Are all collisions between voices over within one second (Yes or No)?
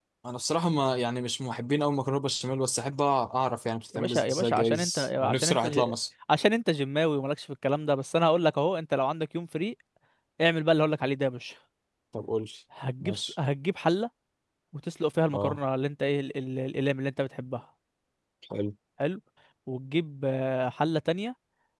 No